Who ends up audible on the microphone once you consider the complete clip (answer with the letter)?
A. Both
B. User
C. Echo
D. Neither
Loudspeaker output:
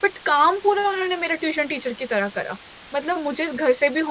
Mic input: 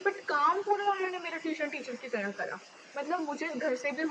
C